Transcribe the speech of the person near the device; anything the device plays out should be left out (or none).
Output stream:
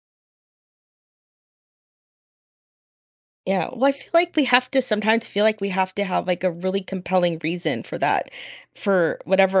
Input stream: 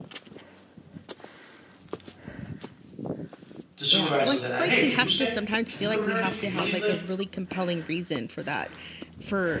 the supervisor would then, uh, hey, can you stay? Can you come in early? Can you leave late?